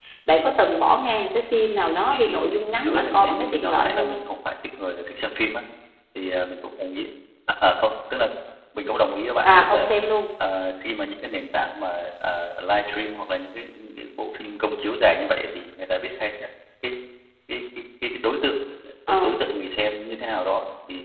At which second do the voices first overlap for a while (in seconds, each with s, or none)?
2.1 s